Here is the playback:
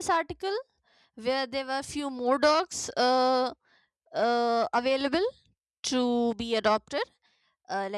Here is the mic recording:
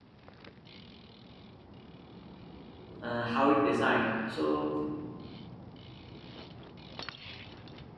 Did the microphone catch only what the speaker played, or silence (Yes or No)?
No